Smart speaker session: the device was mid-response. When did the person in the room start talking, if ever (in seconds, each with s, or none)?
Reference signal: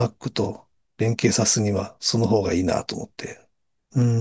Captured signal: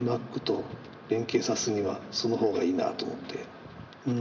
none